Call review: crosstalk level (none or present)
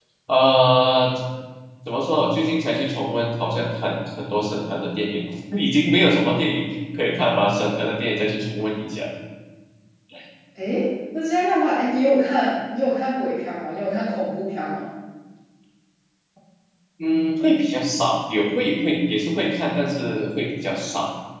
none